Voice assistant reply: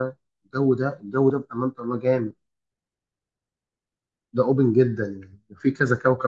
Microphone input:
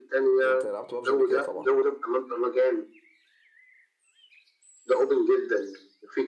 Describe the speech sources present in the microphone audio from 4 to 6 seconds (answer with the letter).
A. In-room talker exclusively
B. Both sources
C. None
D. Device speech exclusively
D